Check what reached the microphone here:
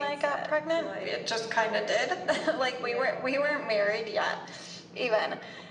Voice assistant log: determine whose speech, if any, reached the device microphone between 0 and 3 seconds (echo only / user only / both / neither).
echo only